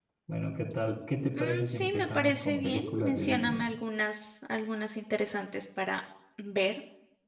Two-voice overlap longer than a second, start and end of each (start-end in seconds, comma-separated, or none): 1.4-3.7